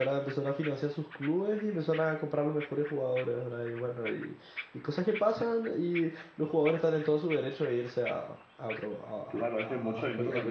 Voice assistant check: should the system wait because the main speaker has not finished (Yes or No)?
No